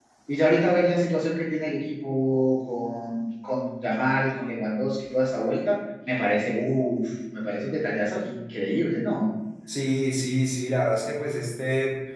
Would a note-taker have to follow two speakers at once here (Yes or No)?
No